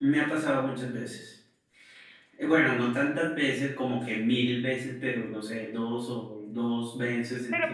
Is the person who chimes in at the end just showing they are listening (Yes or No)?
No